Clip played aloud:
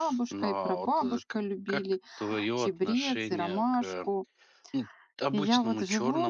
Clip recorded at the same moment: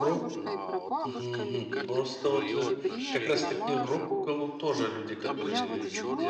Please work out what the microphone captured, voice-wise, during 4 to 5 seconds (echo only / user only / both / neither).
both